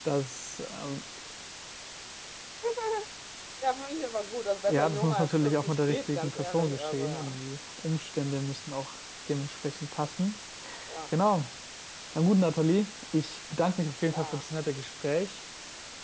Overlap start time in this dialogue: 4.7 s

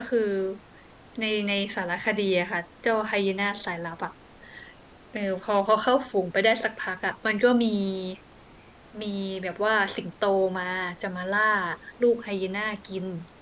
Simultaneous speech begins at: none

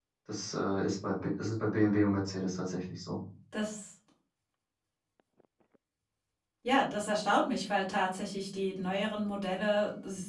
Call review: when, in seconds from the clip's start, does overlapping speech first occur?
none

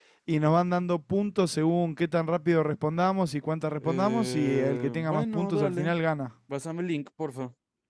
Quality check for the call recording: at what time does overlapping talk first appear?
3.8 s

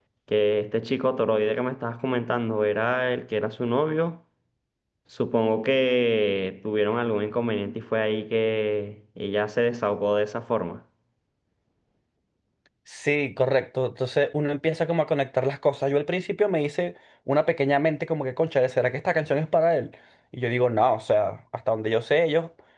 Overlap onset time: none

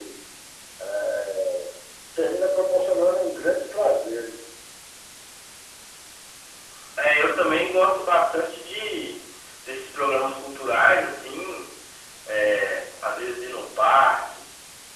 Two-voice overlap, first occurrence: none

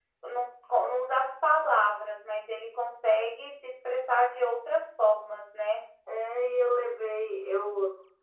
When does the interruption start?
none

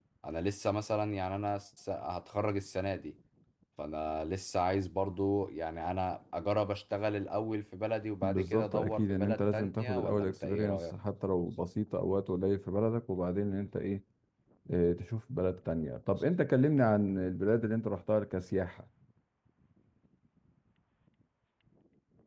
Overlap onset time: 8.2 s

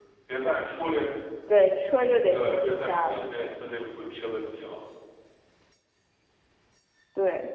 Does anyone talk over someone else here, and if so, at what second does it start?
2.3 s

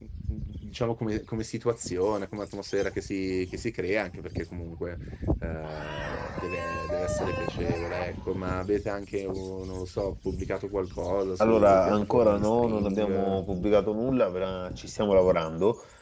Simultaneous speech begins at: 11.4 s

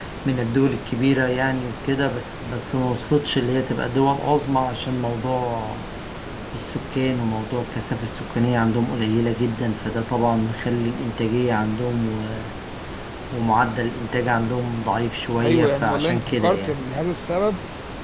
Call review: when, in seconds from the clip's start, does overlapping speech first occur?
15.4 s

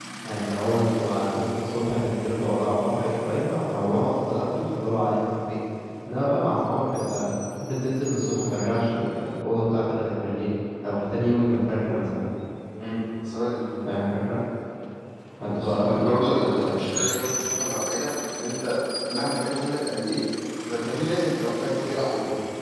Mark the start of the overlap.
15.4 s

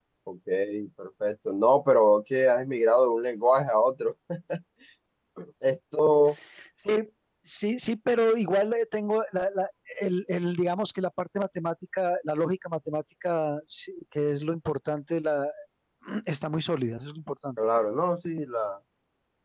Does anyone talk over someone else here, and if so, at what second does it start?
none

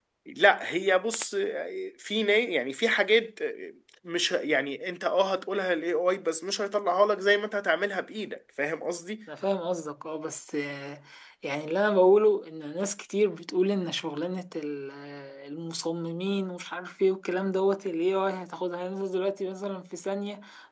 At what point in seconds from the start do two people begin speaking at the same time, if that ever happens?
none

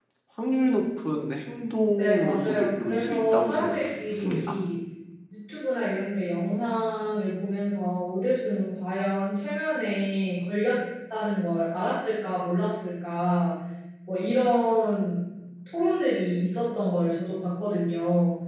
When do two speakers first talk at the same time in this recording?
2.0 s

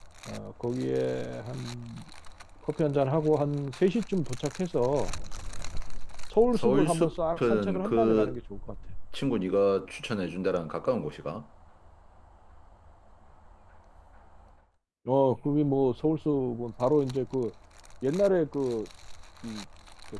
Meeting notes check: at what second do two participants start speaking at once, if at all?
6.5 s

